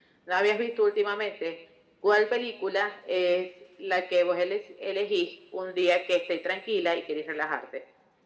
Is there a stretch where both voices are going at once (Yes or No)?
No